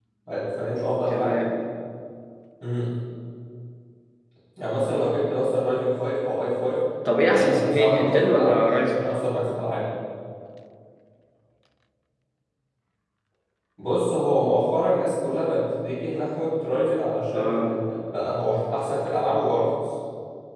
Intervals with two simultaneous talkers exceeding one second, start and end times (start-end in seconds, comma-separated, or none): 7.3-9.0